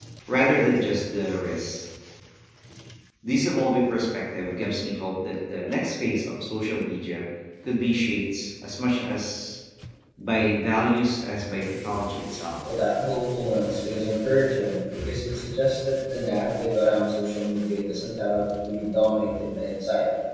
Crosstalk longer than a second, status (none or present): none